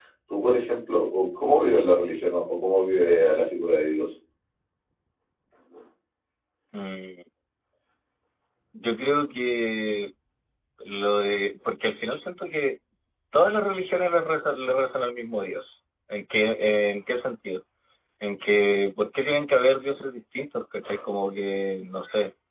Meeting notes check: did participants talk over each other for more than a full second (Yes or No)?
No